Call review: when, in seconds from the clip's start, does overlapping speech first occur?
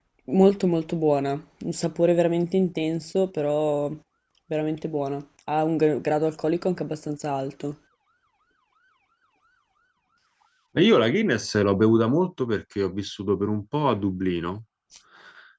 none

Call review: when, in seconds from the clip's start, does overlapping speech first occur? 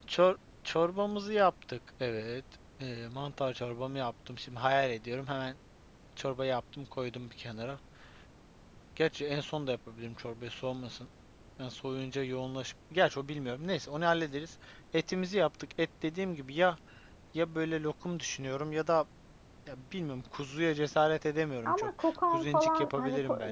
21.6 s

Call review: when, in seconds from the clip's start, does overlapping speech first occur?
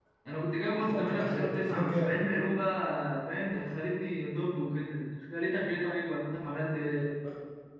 0.8 s

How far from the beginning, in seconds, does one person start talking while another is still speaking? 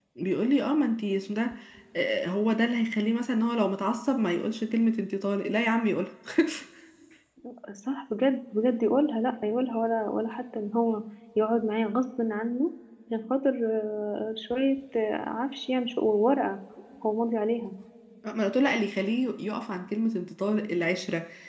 none

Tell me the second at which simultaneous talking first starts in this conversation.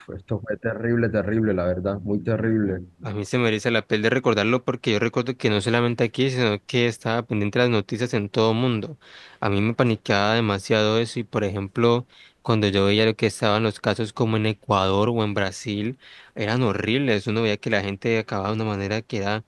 none

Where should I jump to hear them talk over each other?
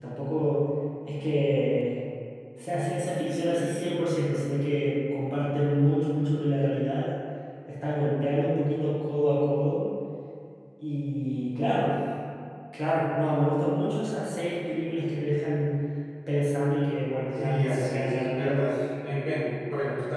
17.3 s

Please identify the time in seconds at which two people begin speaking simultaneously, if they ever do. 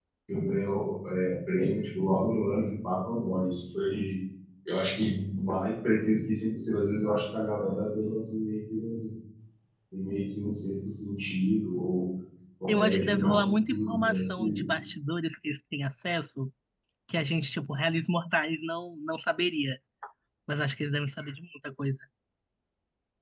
12.7 s

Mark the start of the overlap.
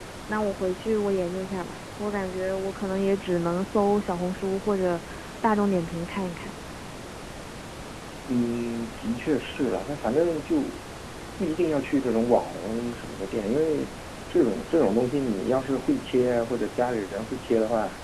none

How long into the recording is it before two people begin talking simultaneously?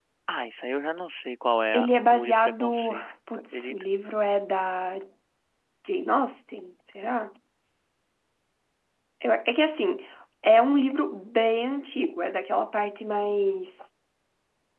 1.7 s

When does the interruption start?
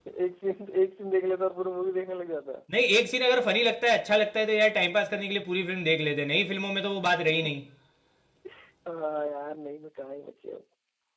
none

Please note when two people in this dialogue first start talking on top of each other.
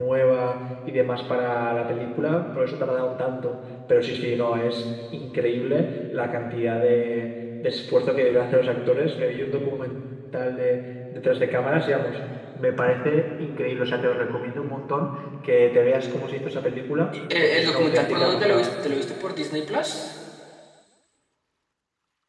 17.4 s

